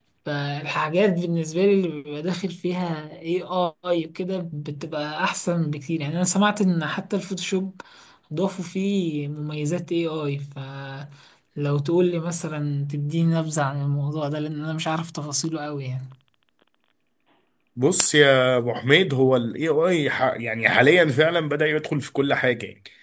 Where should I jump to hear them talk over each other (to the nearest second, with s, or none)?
none